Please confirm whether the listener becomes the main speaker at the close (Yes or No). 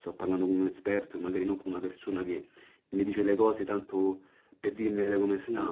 Yes